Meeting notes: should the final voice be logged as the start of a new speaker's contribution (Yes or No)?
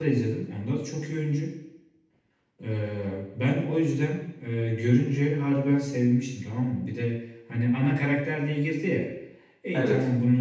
No